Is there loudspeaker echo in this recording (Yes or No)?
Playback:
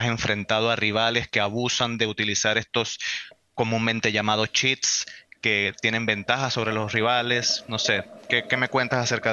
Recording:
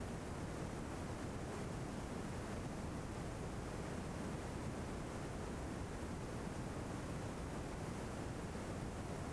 No